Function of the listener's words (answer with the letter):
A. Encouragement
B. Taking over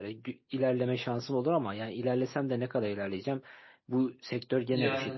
A